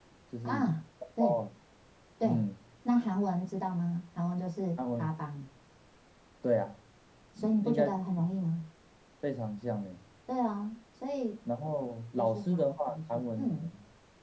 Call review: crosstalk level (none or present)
present